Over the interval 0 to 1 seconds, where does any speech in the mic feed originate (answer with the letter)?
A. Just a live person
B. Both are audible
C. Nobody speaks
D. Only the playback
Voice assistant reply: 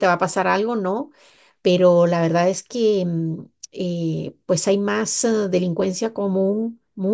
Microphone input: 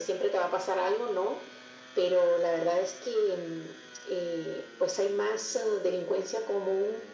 D